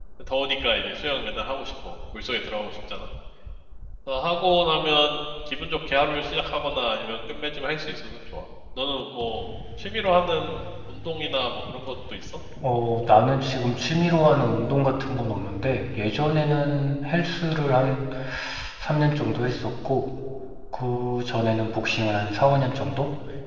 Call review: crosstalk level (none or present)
none